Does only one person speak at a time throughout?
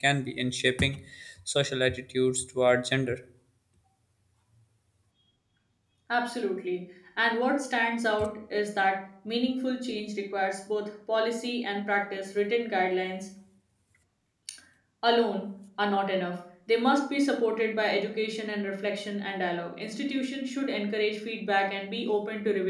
Yes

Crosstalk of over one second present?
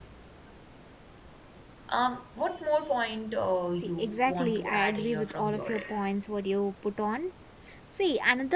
Yes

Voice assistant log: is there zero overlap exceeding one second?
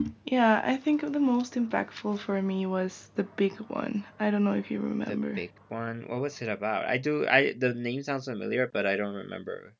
Yes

